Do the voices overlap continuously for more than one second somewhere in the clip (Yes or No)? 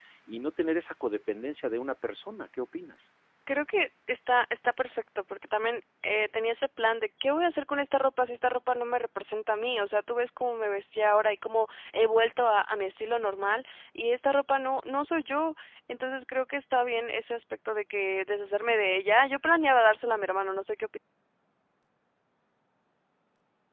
No